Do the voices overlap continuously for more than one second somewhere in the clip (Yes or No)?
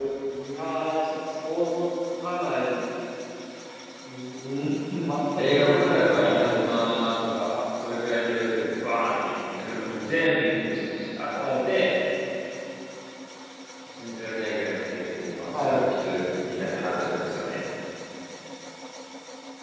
Yes